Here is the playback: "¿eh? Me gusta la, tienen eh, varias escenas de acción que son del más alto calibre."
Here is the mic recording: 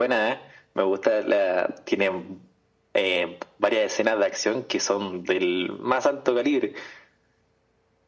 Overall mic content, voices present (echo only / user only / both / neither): echo only